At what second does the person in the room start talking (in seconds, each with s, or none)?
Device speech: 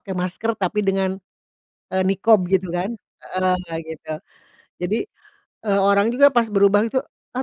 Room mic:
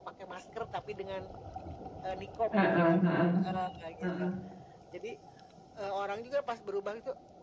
2.5 s